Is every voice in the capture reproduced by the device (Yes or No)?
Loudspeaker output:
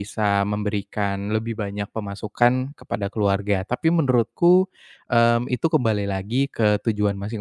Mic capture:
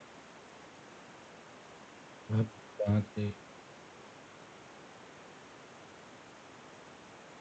No